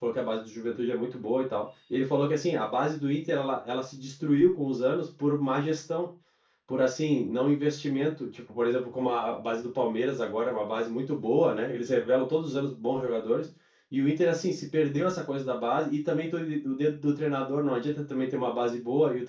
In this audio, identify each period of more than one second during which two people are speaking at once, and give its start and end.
none

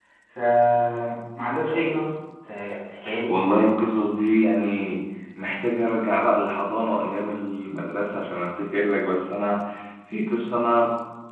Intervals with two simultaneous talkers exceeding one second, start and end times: none

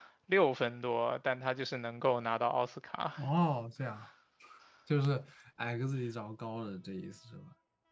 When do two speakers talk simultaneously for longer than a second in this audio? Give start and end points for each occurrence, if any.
none

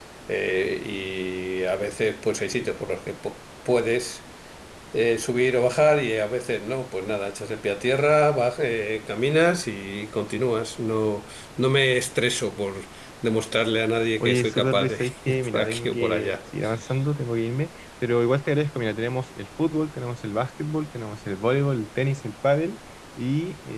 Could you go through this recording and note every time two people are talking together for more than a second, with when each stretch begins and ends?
14.2-16.3

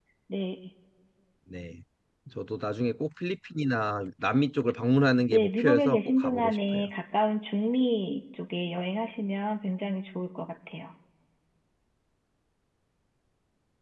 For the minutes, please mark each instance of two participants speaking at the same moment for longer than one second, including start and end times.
5.3-6.9

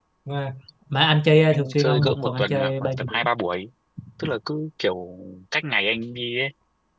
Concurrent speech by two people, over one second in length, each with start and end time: 1.5-3.2

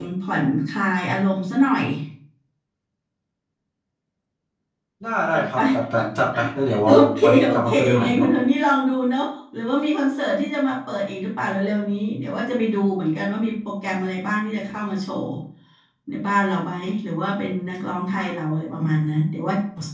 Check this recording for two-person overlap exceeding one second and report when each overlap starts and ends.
6.9-8.3

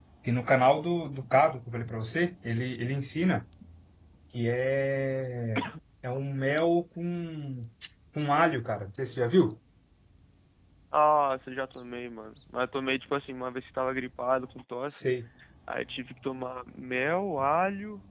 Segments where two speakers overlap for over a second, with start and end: none

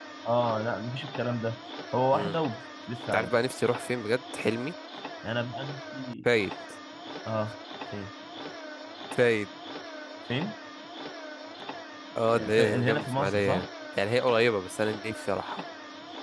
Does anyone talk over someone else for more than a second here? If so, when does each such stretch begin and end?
12.3-13.7

